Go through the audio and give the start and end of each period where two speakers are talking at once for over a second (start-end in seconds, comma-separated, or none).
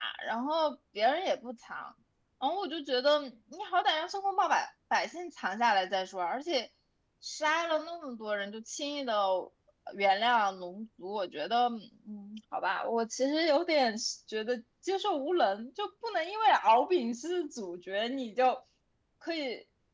none